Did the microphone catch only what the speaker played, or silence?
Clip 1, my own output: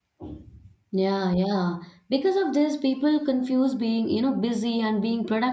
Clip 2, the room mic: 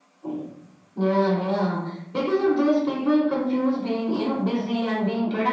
Yes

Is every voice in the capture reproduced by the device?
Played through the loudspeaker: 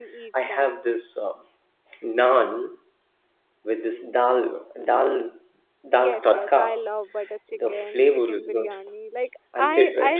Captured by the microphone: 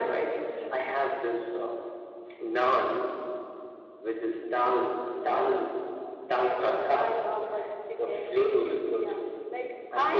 Yes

